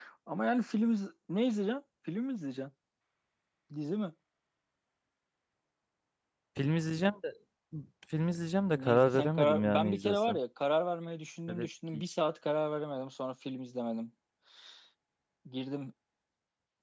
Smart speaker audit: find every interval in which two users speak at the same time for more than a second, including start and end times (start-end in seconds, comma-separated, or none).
8.7-10.4